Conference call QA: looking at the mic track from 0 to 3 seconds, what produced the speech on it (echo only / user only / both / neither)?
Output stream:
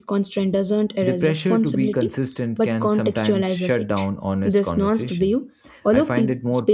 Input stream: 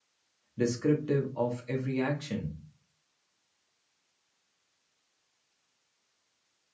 user only